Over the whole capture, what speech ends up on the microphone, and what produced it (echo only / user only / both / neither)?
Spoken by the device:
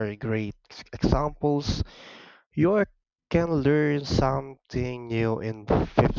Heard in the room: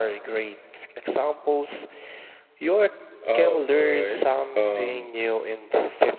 both